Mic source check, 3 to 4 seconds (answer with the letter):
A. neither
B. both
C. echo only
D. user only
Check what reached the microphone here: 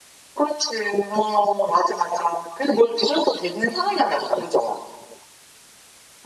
C